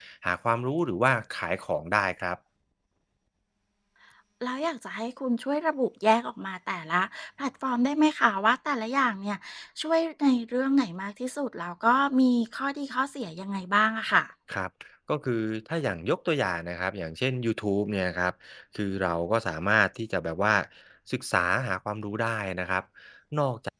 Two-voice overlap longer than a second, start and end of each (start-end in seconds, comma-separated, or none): none